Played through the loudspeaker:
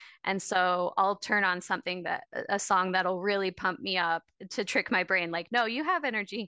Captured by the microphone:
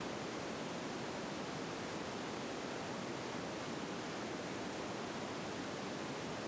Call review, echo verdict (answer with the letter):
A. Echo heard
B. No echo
B